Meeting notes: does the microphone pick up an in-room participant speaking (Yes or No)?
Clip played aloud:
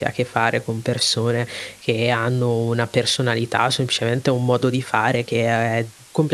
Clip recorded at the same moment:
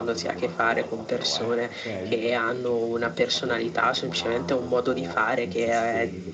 Yes